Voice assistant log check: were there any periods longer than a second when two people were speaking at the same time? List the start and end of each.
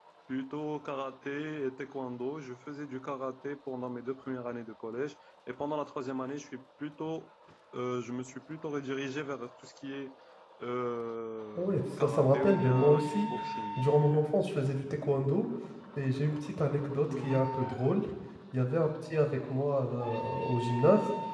11.6-13.2

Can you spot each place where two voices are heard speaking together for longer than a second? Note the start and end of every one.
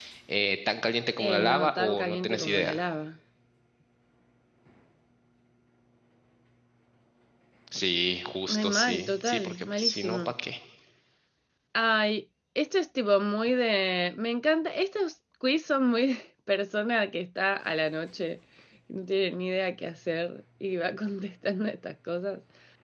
1.2-2.8, 8.5-10.2

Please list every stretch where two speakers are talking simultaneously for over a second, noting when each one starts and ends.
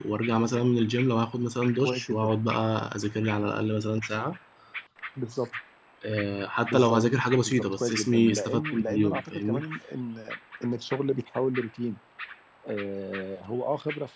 7.4-9.6

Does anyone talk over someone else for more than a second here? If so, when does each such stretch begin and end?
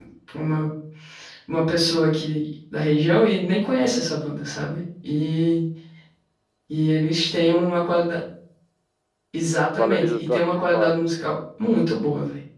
9.8-11.0

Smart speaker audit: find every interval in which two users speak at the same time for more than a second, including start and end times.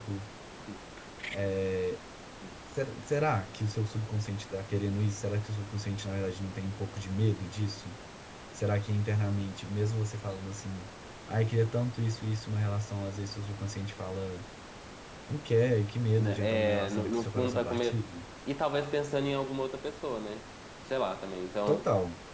16.2-18.0

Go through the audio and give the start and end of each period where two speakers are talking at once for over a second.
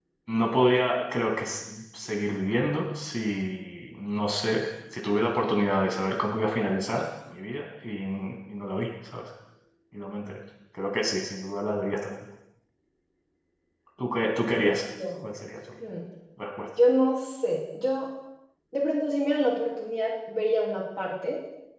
none

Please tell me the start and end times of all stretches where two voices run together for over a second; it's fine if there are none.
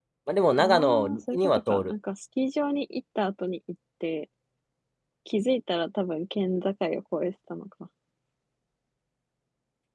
0.6-1.9

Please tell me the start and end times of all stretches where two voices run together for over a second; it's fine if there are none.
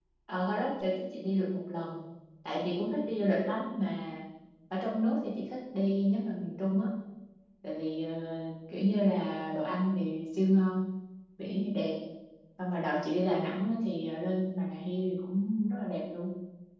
none

